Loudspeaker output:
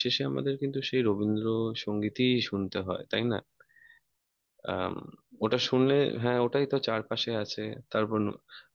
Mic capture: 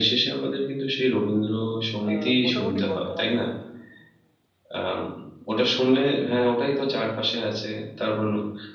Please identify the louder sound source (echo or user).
echo